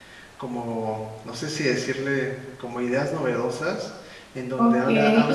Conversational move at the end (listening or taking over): taking over